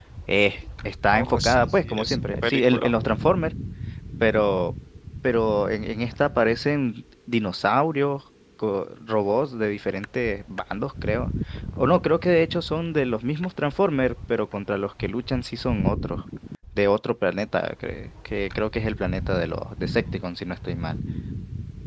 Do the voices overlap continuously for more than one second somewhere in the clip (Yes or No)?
Yes